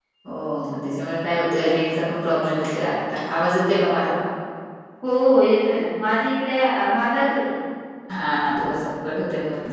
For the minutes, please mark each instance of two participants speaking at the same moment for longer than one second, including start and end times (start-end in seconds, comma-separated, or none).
none